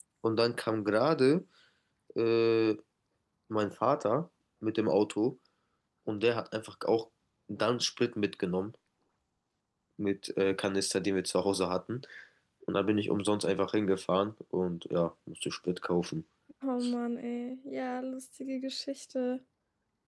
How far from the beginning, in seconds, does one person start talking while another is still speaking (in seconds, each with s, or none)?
none